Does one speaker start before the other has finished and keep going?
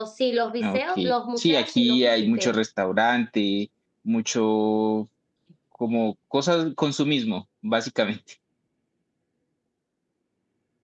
Yes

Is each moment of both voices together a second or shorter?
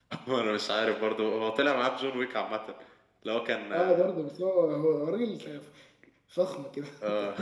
Yes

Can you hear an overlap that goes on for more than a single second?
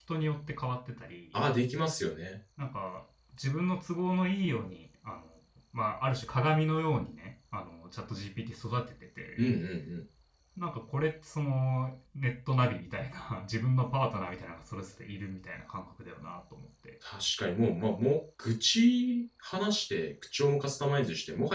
No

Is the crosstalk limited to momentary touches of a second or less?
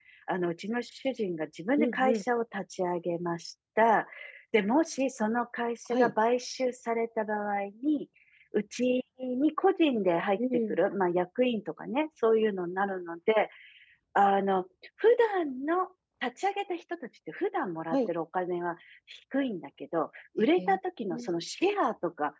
Yes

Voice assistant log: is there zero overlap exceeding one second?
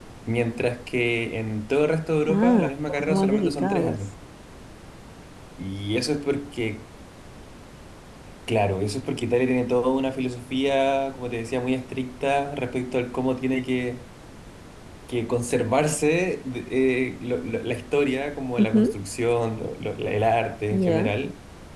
No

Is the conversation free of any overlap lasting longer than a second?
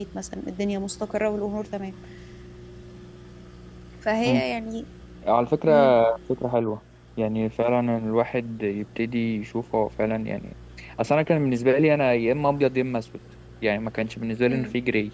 Yes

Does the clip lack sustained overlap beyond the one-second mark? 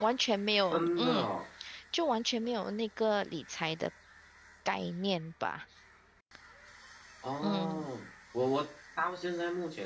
Yes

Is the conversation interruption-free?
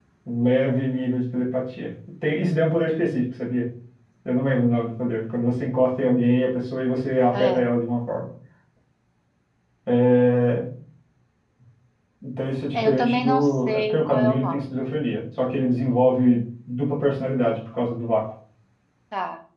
No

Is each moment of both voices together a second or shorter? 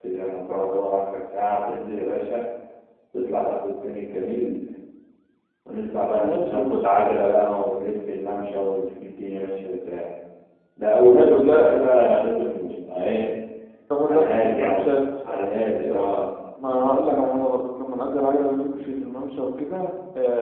No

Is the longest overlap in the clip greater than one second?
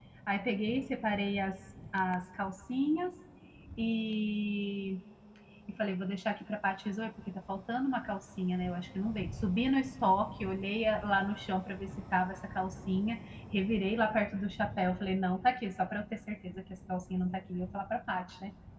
No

